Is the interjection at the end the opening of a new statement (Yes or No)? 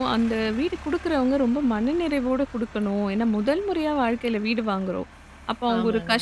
No